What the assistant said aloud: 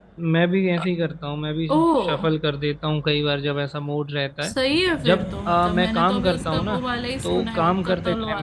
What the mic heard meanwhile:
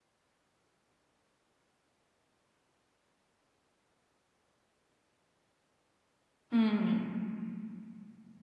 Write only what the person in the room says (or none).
हम्म